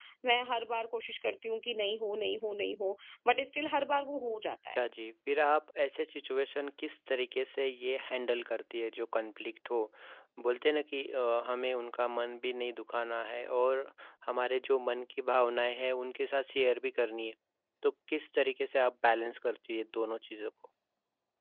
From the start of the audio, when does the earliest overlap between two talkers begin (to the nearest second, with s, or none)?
none